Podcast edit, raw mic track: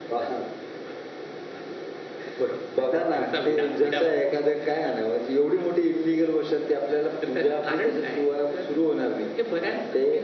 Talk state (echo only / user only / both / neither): echo only